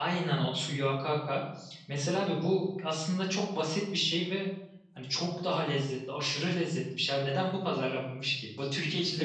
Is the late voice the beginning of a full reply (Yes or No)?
Yes